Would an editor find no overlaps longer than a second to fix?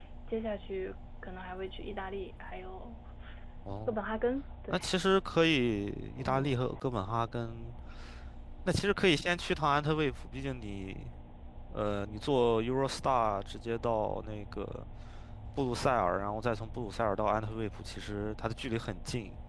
Yes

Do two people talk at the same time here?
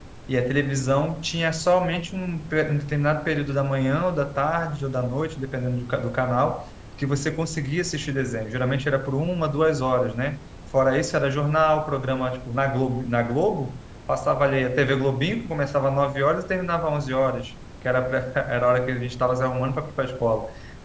No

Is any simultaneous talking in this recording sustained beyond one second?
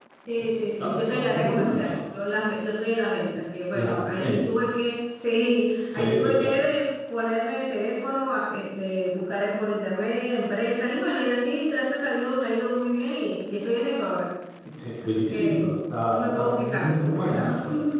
Yes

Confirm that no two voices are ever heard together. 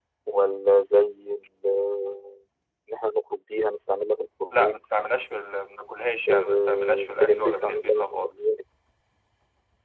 No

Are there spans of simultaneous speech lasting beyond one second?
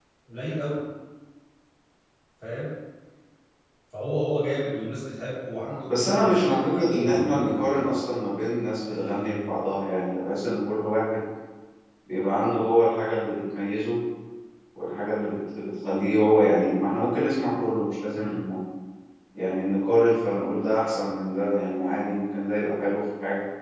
Yes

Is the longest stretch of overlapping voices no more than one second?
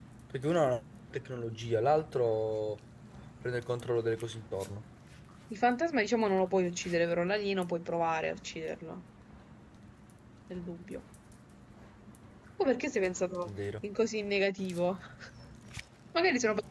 Yes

